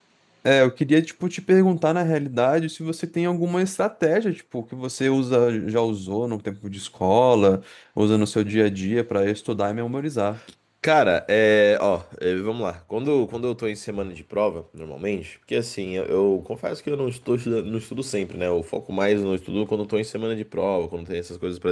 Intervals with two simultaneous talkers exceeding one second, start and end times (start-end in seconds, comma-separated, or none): none